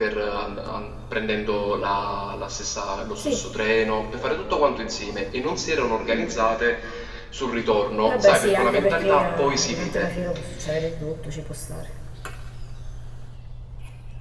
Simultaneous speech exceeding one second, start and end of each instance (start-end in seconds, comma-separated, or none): 8.1-10.1